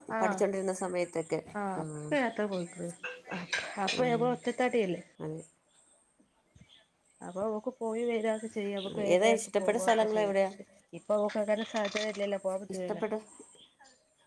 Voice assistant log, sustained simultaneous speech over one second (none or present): present